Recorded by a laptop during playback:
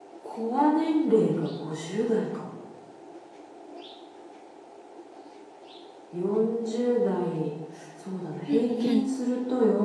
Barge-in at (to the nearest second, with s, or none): 8 s